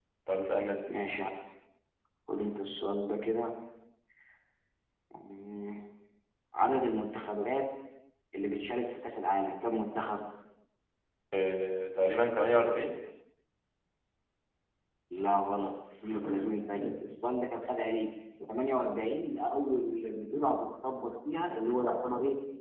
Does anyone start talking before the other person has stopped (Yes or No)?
No